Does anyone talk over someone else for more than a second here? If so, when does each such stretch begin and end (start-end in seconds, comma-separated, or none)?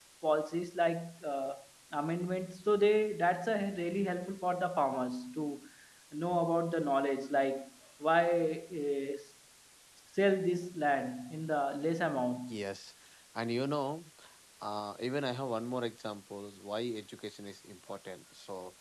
none